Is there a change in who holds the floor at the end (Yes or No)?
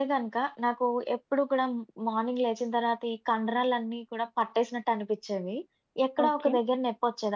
No